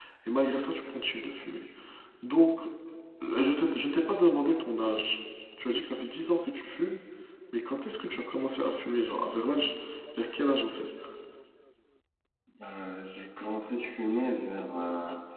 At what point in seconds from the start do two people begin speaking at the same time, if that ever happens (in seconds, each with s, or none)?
none